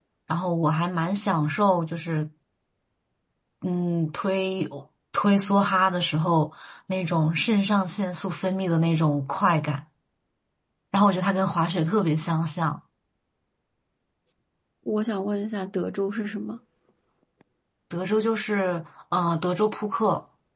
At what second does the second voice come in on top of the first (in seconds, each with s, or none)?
none